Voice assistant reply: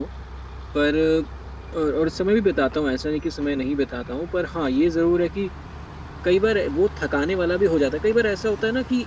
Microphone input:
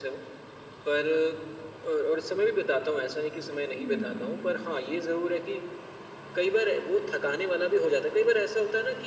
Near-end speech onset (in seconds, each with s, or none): 3.8 s